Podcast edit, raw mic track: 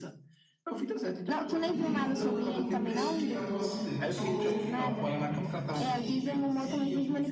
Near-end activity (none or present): present